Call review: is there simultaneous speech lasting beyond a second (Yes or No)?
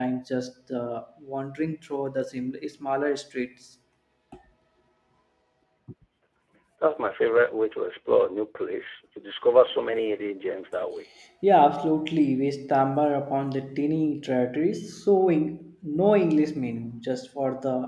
No